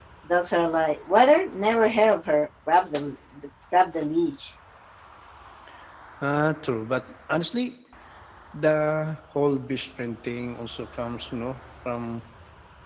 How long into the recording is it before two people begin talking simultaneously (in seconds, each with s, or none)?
none